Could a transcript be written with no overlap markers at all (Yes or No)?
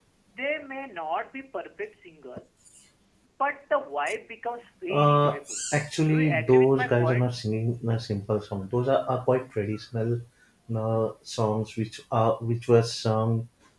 No